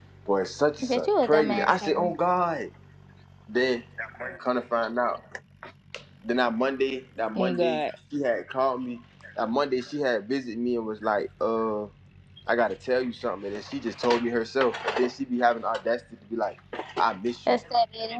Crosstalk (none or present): present